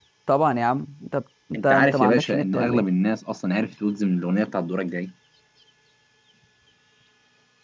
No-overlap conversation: No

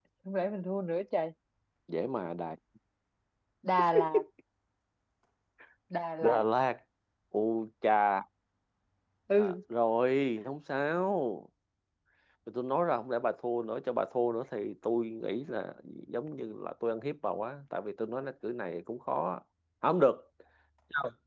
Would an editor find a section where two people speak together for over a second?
No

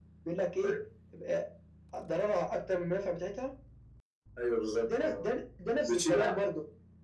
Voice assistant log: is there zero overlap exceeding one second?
Yes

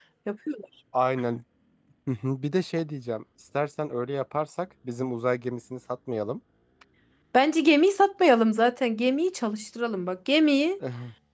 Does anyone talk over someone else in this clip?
No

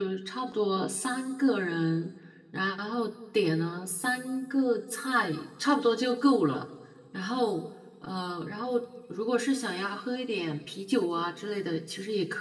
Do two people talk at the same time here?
No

